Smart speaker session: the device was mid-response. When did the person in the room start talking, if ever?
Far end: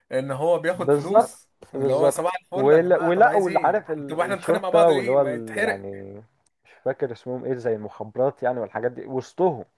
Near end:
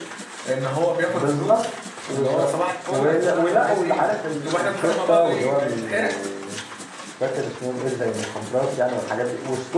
none

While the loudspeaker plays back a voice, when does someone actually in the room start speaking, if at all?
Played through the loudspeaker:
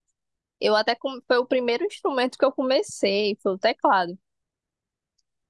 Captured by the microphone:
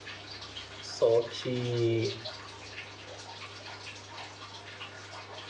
1 s

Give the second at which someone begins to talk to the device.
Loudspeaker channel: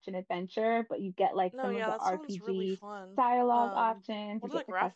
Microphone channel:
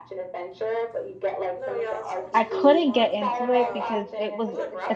2 s

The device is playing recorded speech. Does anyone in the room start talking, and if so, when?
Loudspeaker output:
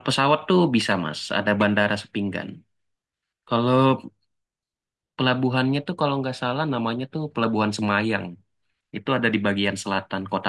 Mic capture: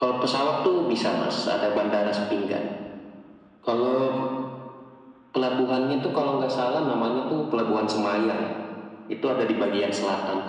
none

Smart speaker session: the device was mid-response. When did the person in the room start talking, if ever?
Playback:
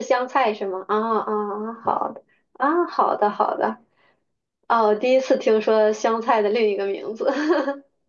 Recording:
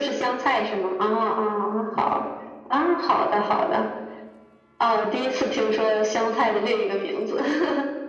none

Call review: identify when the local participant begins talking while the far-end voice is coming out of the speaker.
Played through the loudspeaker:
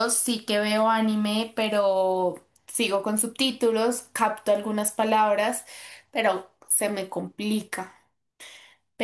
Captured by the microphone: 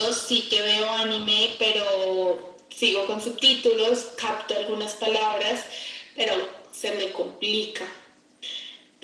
none

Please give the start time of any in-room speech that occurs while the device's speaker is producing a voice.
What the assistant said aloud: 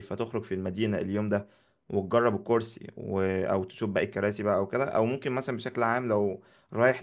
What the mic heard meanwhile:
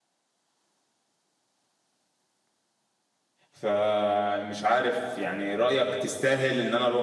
4 s

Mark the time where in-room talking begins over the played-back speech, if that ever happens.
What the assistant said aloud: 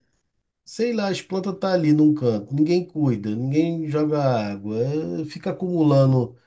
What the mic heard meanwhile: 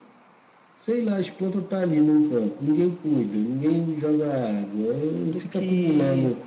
5 s

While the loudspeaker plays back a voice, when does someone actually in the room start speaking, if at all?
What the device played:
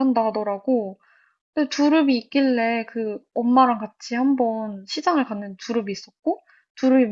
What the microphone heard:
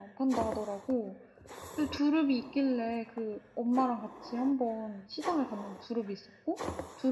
none

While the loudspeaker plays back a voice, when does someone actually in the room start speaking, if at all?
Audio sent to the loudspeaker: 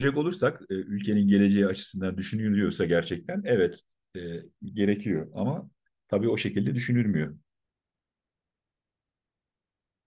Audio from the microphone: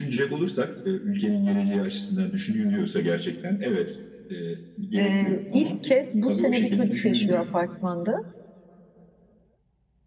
5 s

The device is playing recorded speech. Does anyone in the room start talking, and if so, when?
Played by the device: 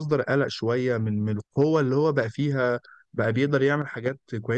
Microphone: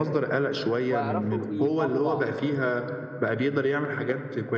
1 s

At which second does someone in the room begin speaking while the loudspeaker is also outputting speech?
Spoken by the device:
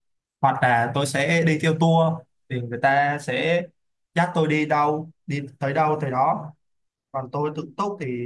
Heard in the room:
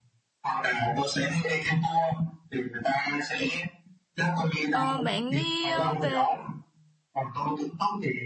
5 s

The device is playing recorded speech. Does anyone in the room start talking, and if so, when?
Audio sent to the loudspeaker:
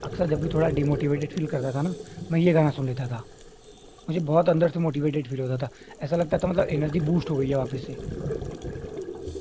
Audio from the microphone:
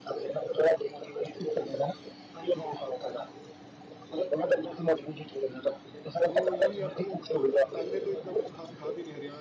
6 s

